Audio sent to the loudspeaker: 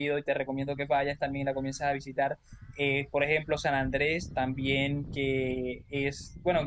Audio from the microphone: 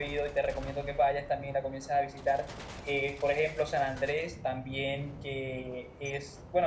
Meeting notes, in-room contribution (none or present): none